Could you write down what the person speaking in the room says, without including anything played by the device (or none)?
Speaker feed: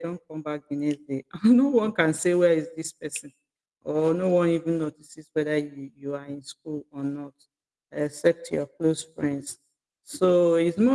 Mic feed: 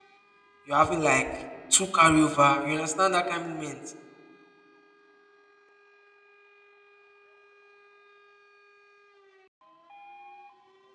you're having like two carryover. You understand that kind of moment.